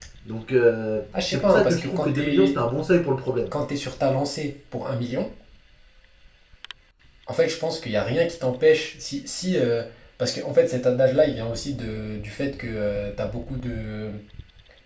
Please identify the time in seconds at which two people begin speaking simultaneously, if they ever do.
1.1 s

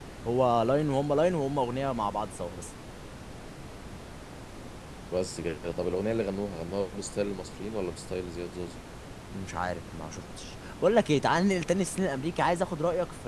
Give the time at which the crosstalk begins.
none

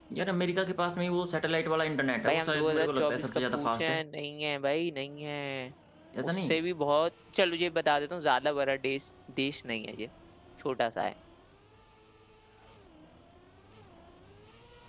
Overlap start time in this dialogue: 2.2 s

